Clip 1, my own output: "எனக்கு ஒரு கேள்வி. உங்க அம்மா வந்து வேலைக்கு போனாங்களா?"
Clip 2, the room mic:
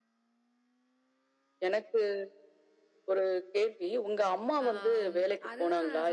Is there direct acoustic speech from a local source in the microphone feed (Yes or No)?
Yes